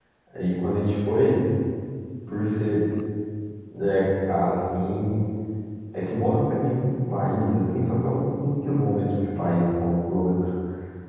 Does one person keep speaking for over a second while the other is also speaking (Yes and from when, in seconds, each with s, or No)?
No